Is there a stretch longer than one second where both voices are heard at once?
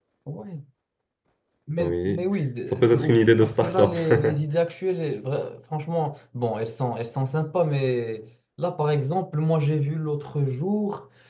Yes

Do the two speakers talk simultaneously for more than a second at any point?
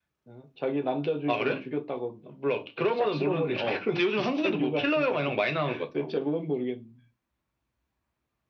Yes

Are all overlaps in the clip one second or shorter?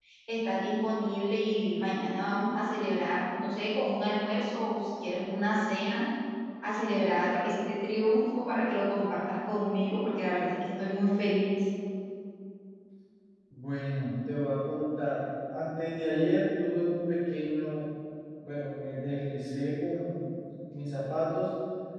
Yes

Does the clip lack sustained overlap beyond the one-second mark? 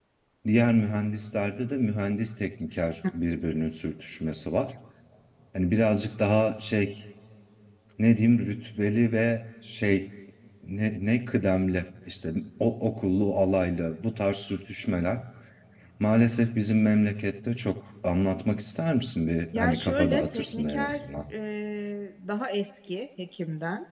No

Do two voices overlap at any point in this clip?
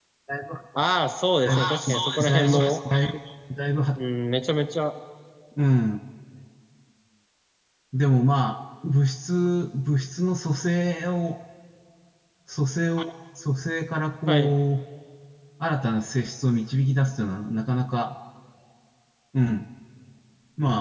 Yes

